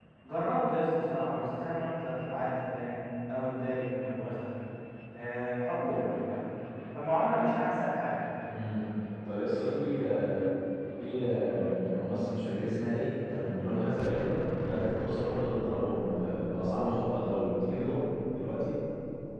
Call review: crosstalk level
none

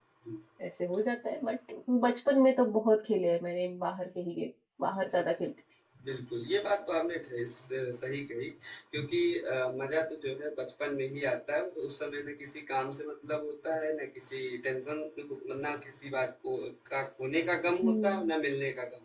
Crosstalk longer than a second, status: none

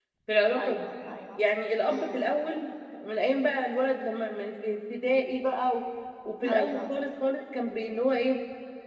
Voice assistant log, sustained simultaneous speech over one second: none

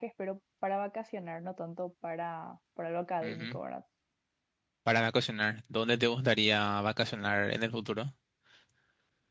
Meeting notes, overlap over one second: none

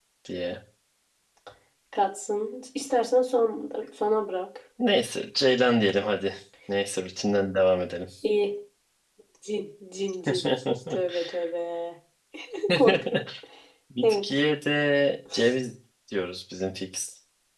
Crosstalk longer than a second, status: none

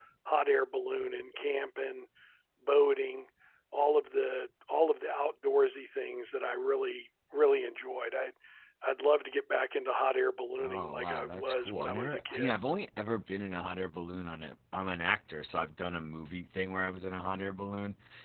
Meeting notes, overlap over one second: present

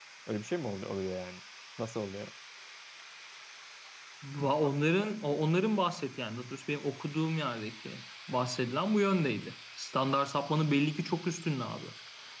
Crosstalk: none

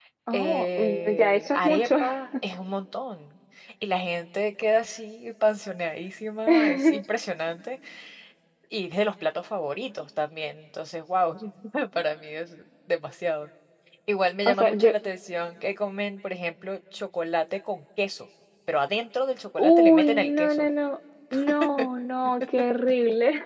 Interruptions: present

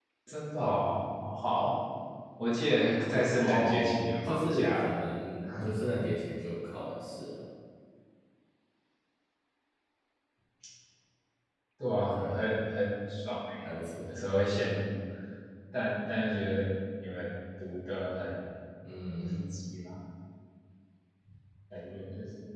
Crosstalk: present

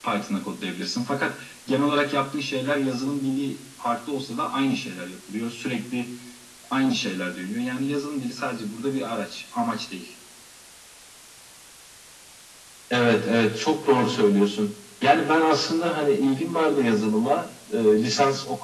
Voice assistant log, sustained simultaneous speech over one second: none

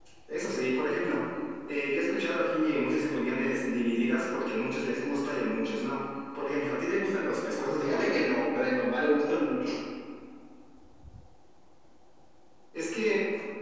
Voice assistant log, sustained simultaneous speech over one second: none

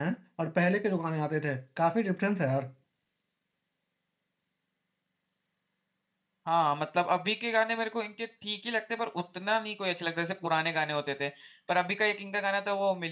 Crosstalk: none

